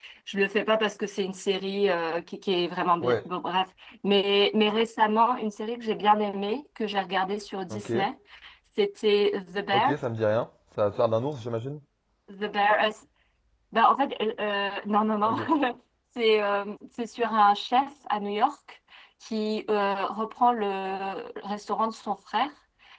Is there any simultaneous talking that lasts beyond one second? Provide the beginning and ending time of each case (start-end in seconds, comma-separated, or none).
none